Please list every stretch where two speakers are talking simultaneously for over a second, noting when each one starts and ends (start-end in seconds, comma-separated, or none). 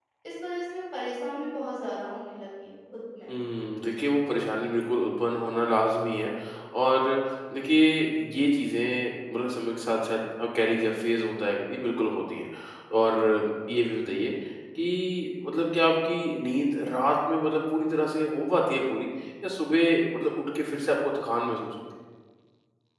none